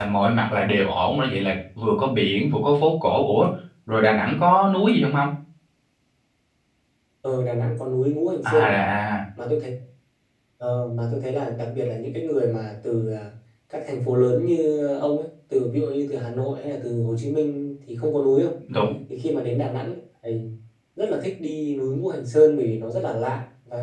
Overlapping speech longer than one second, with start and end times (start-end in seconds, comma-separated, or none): none